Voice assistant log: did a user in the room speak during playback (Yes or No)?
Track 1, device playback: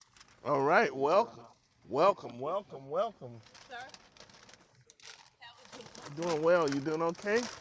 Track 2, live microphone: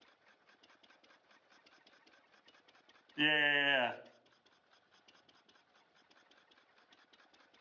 Yes